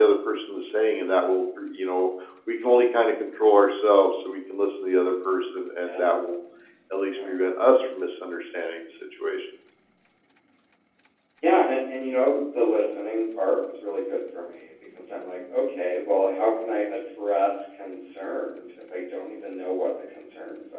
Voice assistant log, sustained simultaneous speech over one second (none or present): none